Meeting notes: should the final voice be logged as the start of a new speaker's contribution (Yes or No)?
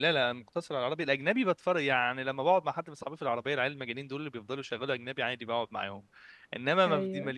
No